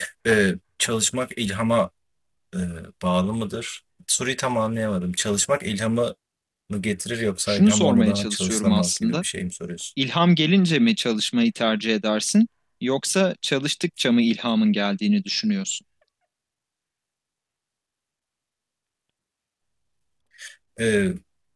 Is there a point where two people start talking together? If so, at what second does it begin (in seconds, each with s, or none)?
7.5 s